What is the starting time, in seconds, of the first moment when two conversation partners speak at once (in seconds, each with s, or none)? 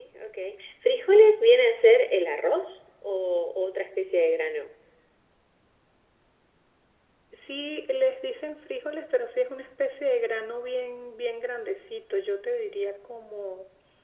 none